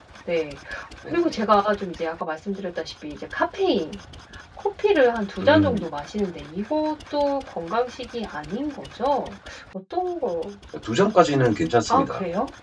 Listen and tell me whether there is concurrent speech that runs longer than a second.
No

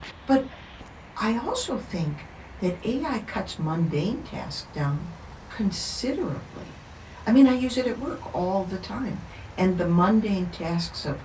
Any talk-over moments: No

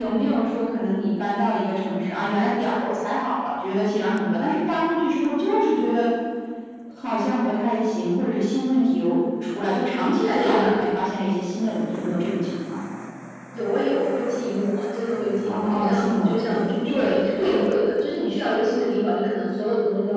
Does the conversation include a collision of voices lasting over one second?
Yes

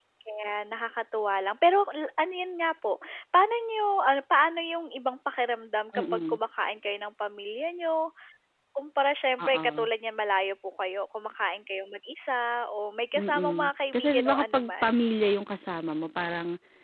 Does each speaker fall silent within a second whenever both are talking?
No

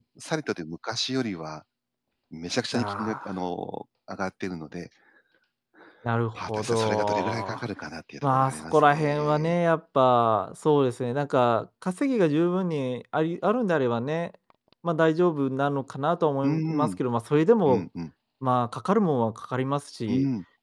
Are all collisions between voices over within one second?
No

